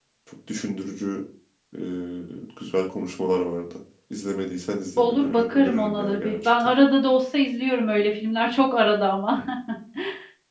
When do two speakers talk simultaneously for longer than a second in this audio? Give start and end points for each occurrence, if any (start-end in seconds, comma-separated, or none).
5.0-6.7